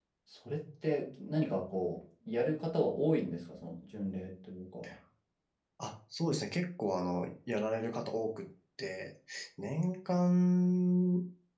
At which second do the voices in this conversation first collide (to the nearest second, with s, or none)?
none